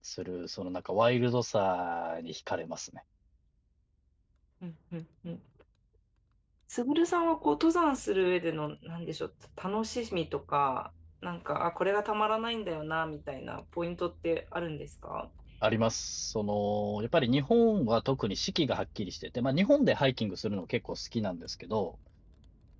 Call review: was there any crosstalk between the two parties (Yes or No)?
No